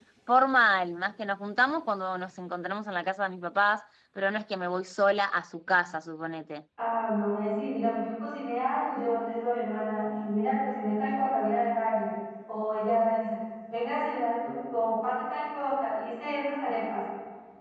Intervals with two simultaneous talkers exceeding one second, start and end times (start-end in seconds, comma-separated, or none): none